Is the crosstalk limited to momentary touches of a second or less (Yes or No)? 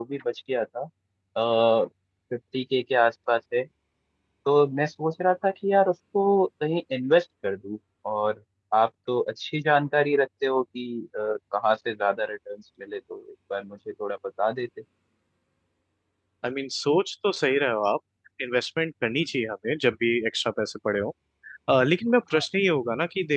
Yes